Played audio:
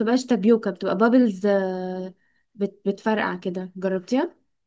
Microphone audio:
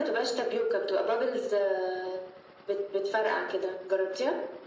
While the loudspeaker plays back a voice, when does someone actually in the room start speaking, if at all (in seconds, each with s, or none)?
none